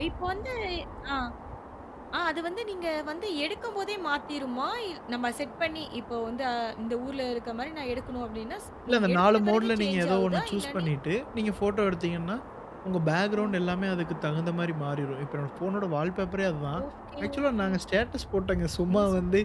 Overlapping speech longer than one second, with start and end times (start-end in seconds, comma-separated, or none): 8.9-10.9